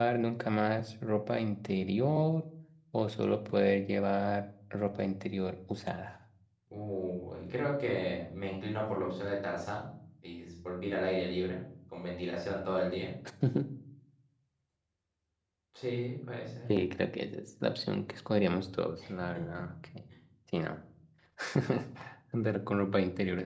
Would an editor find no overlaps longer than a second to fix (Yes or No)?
Yes